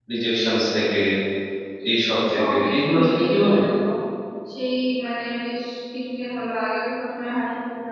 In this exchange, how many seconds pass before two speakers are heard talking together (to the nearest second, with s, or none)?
2 s